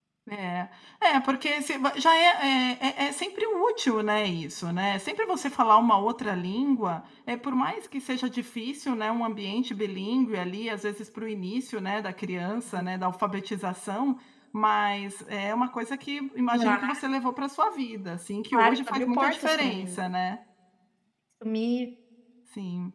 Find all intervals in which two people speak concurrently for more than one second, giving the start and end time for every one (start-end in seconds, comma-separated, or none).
18.5-20.0